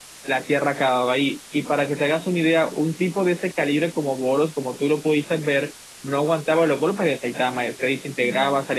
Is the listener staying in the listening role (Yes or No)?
Yes